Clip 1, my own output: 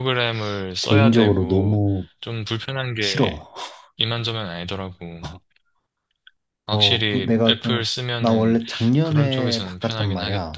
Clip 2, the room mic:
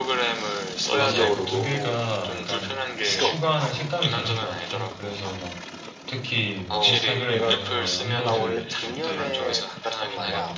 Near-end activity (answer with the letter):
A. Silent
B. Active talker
B